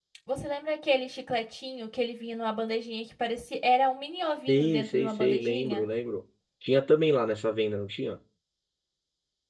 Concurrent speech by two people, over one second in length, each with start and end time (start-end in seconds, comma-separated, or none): 4.5-5.9